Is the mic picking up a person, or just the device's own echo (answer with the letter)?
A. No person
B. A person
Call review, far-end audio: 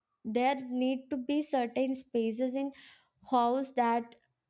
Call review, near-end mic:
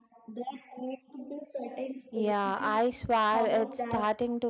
B